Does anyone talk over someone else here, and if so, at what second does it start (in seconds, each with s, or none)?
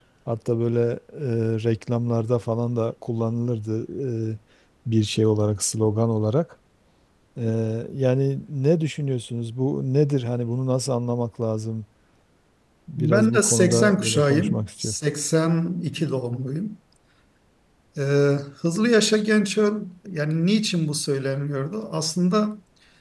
13.0 s